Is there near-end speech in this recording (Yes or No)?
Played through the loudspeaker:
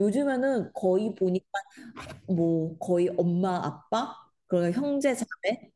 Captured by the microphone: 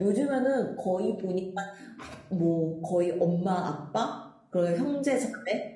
No